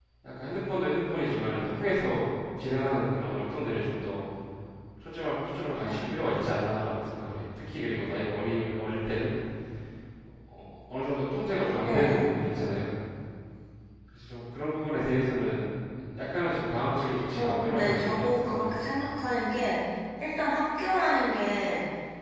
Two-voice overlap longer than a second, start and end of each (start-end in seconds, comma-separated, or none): 17.4-19.2